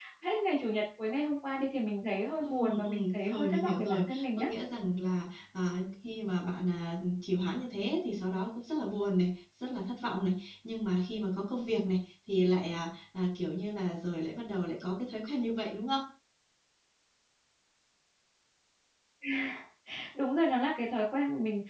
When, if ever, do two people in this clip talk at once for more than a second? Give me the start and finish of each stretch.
2.4-4.5

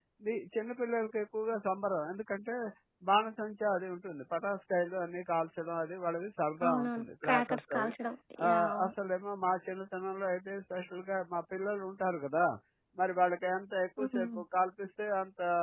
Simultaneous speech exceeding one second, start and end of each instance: 6.6-7.9

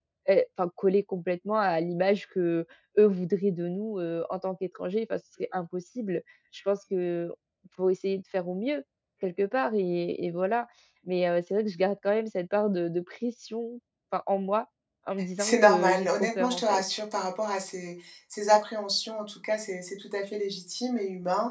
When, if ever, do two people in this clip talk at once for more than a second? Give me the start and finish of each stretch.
15.4-16.8

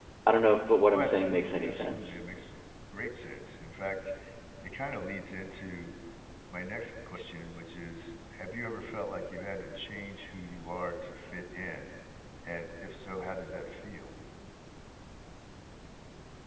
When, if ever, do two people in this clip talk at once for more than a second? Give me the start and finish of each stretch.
0.9-2.1

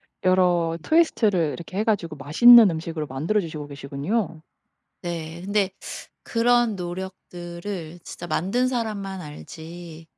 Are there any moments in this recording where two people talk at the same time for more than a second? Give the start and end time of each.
none

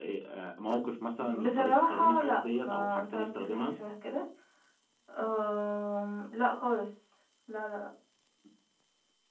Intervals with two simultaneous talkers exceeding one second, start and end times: 1.4-3.7

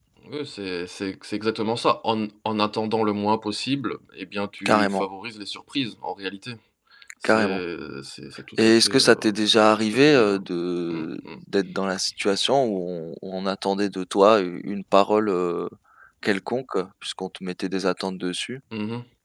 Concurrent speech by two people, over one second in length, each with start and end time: 8.6-10.3

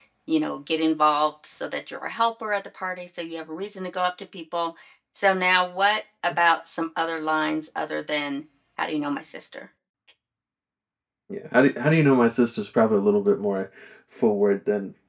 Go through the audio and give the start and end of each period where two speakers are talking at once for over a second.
none

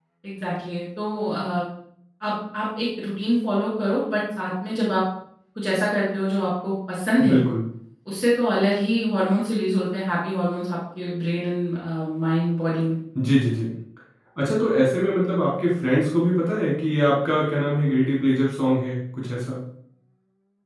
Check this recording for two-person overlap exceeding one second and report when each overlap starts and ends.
none

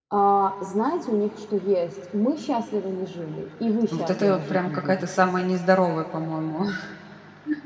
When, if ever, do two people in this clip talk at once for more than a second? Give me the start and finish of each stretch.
3.9-5.3

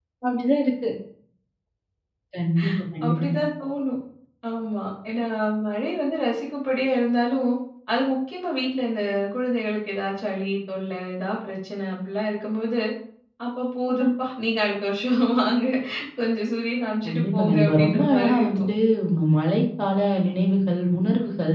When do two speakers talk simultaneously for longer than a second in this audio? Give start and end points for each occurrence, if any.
17.1-18.6

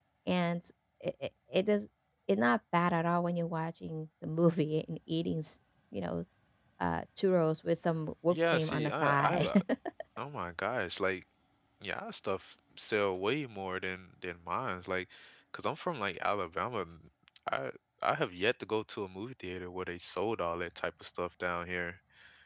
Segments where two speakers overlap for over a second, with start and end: 8.3-9.5

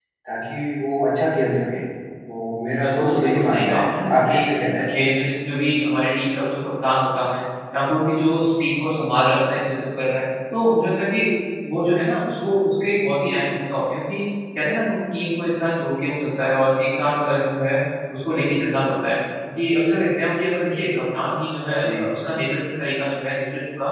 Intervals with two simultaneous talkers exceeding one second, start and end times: 2.8-4.4

